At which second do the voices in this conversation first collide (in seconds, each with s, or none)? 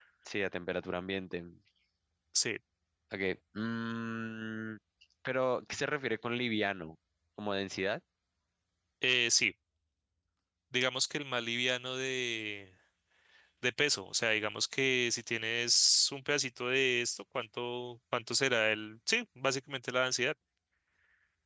none